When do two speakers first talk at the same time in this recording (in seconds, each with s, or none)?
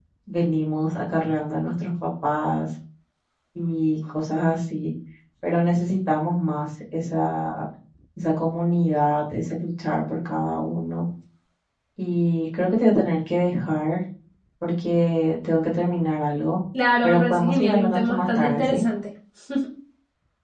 17.0 s